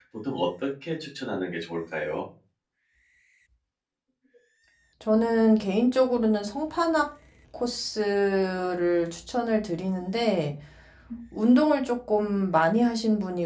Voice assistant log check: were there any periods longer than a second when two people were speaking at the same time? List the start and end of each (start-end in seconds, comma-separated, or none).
none